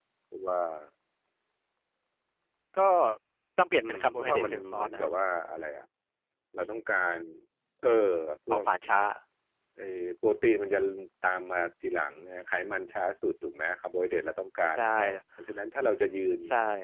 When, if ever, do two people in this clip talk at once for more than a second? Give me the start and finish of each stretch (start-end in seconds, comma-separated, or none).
3.8-5.1